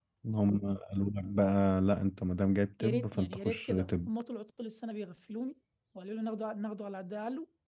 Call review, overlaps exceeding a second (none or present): present